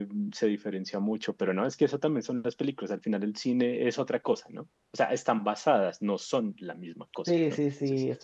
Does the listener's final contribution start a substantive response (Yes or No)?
Yes